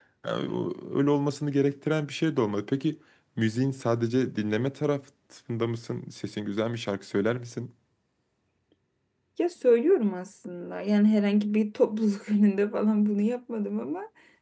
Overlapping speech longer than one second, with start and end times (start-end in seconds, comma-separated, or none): none